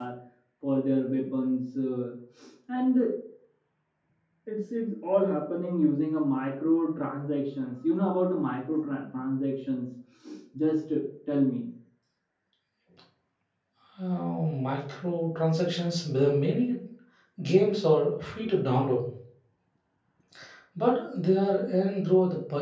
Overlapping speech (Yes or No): No